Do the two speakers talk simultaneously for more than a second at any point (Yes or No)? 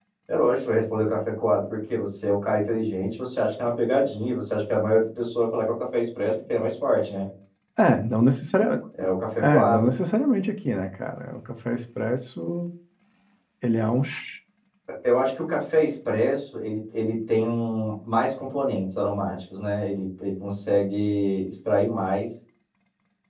No